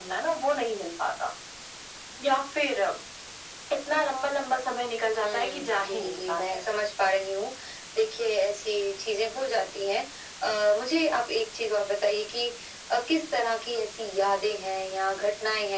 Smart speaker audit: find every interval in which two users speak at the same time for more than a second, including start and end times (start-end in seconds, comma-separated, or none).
5.2-6.7